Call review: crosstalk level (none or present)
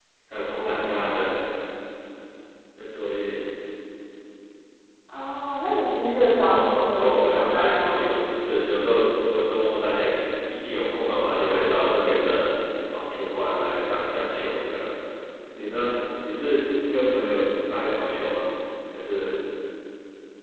present